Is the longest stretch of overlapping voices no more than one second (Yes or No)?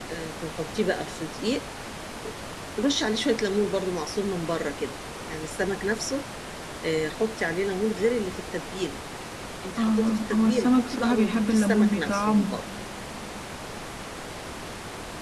No